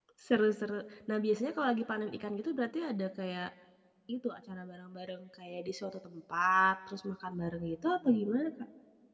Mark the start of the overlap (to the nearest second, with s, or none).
none